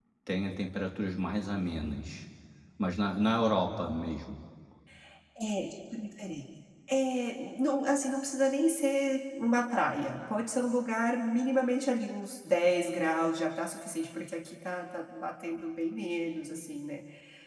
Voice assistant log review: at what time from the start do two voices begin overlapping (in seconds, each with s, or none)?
none